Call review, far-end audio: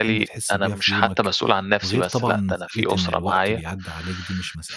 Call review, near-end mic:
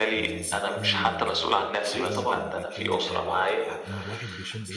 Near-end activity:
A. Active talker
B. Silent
A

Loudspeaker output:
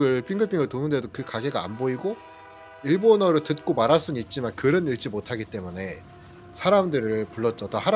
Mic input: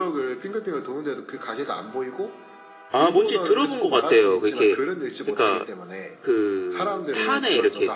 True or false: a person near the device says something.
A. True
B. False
A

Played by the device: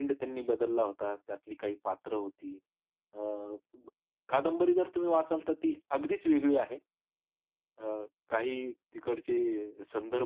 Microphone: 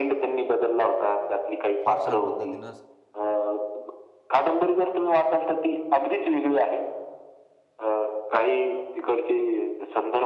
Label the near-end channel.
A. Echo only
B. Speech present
B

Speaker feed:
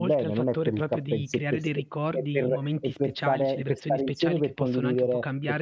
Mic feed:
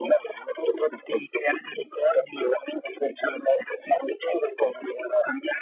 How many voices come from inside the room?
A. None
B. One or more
A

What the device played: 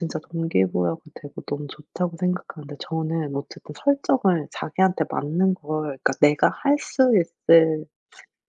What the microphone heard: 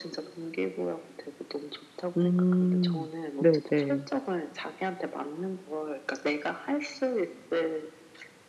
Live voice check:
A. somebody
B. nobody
A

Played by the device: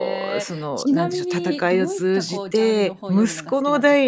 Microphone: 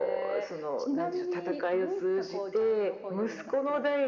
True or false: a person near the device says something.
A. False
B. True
A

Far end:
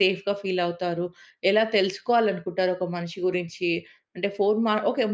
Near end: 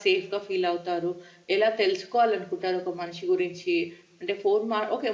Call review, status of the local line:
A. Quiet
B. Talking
A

